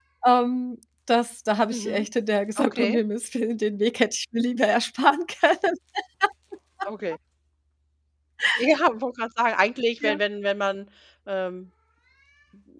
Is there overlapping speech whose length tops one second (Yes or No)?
No